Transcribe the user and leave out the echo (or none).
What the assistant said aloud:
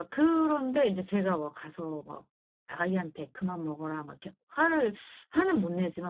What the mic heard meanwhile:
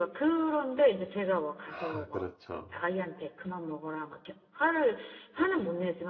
아 그렇죠.